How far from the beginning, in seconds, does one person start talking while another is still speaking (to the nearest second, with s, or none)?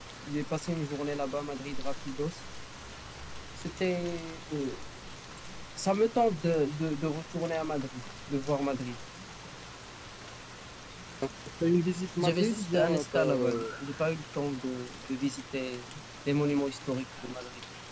12 s